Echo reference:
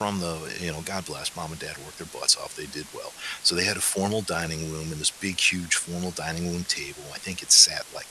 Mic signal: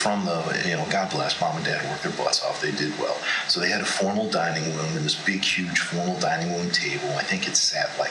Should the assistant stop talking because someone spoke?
No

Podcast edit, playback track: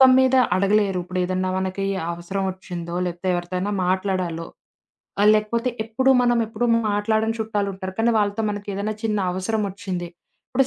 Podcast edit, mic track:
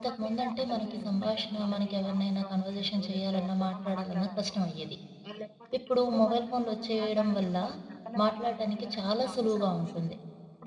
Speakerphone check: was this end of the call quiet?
No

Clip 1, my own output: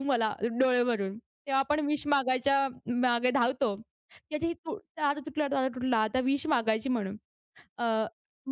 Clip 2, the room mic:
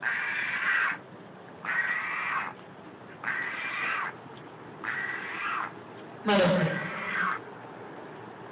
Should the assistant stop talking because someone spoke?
Yes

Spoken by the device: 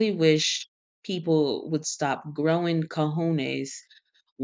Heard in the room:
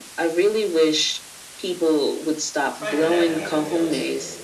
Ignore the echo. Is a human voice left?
Yes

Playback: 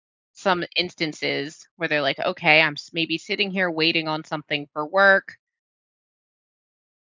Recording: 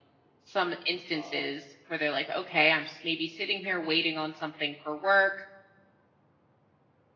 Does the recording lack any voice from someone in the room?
No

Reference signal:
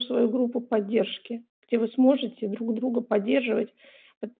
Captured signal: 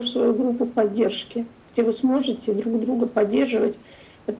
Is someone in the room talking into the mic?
No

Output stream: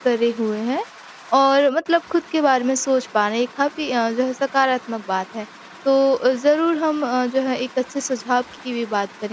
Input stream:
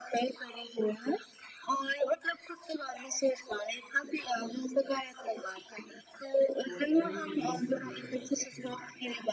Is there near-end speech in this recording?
Yes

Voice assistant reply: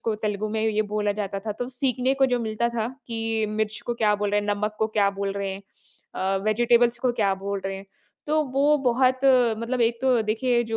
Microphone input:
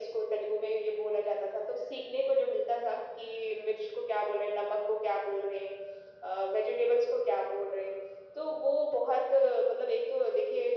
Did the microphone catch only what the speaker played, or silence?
Yes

